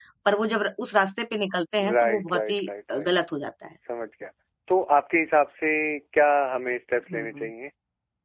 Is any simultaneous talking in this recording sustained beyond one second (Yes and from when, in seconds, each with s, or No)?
Yes, from 1.8 s